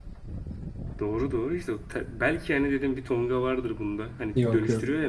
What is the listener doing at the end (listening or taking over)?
listening